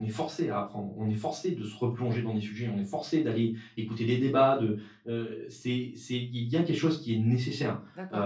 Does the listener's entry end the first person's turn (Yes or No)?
Yes